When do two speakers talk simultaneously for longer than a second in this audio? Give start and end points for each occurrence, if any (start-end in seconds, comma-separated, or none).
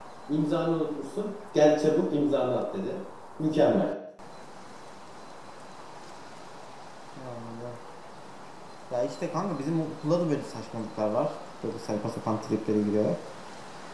none